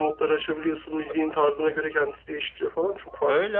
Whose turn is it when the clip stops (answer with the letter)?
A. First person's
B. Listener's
B